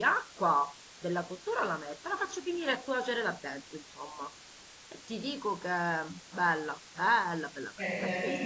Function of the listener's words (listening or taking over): taking over